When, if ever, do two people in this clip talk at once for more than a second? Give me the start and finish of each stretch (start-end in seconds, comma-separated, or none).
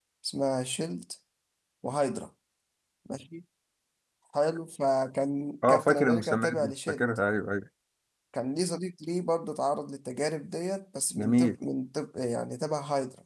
5.7-7.0